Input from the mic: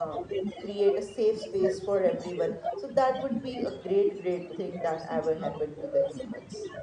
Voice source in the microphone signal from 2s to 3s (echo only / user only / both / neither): both